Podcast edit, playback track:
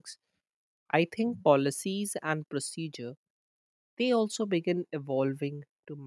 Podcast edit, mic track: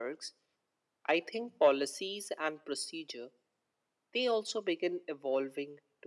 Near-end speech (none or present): none